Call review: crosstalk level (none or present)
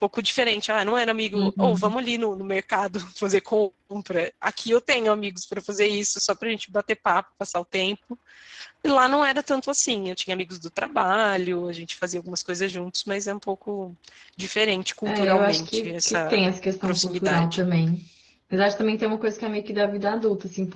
present